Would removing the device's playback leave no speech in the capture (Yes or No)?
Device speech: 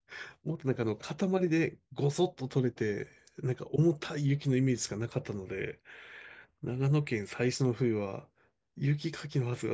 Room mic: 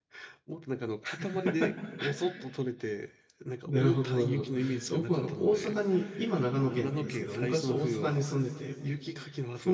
No